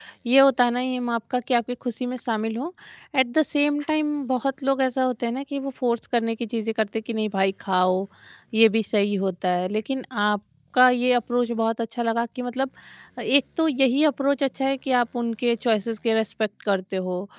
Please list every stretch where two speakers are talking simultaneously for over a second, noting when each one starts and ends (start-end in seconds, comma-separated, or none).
none